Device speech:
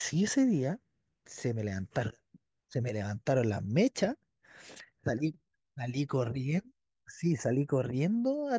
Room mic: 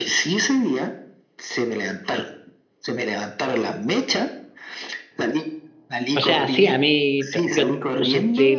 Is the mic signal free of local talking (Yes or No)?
No